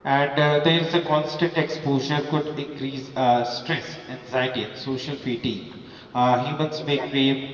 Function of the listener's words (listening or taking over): listening